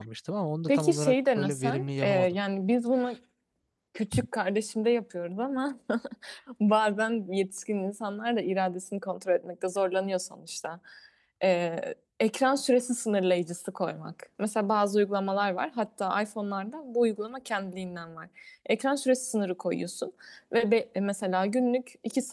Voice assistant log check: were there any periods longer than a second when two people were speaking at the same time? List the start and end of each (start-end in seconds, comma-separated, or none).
0.7-2.4